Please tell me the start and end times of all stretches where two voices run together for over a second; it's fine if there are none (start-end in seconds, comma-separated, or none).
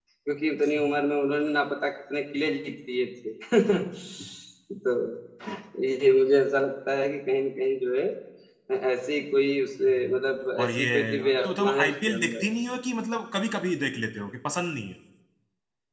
10.6-12.4